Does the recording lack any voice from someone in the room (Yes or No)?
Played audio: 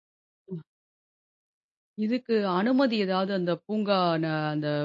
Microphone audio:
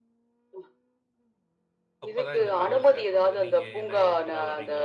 No